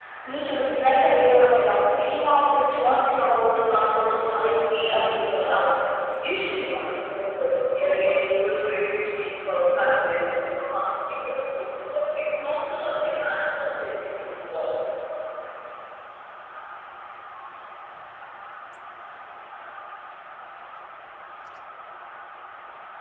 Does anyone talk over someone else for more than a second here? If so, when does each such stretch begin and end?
4.3-5.6

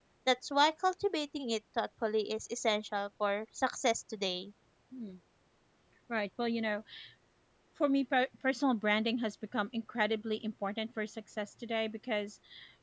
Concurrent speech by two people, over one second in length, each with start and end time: none

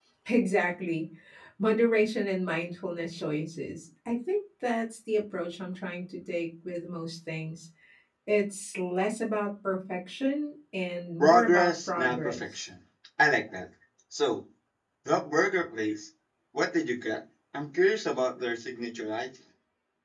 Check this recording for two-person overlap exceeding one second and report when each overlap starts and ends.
11.2-12.6

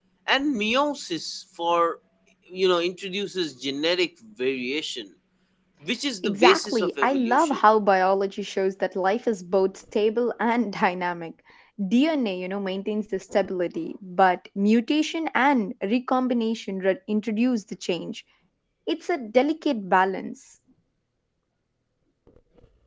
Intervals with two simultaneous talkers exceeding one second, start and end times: 6.2-7.6

